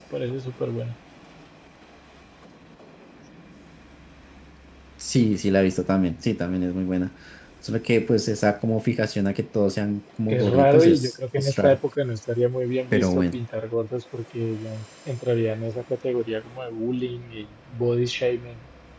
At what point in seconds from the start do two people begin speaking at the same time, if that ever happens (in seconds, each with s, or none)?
10.3 s